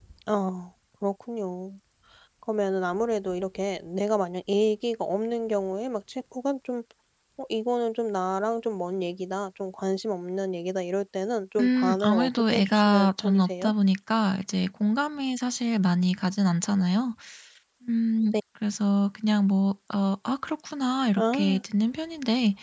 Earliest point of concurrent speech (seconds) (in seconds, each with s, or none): 11.6 s